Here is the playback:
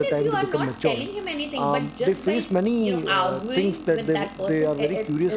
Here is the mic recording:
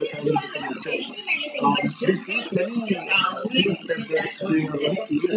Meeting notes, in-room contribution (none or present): none